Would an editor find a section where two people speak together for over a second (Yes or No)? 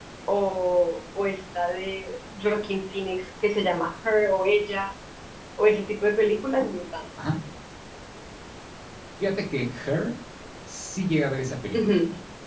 No